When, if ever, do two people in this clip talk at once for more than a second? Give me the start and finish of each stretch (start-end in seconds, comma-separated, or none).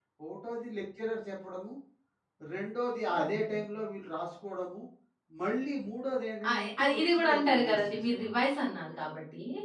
6.5-8.3